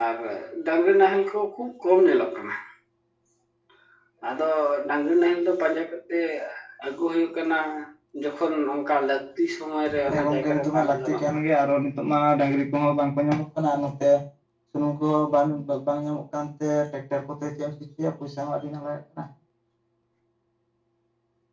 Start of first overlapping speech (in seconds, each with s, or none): 9.9 s